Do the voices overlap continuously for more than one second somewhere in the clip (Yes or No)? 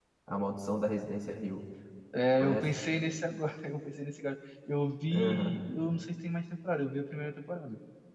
No